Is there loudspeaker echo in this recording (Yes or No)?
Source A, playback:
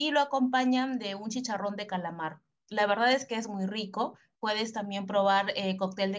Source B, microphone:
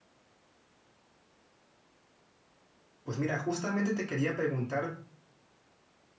No